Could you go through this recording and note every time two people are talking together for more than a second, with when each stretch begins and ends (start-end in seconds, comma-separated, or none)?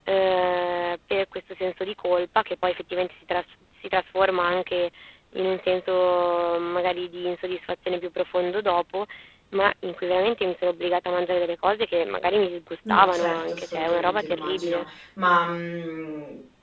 12.8-14.8